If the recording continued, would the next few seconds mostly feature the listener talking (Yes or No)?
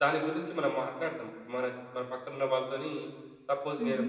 No